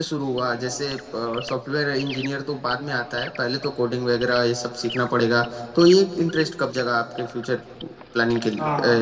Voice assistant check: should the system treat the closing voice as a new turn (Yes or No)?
Yes